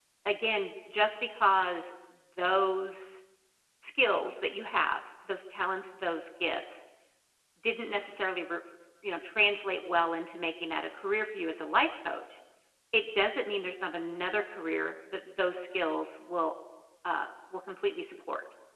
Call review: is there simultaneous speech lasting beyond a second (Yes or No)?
No